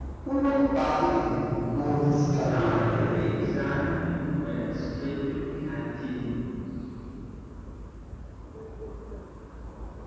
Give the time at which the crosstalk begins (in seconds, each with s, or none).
1.7 s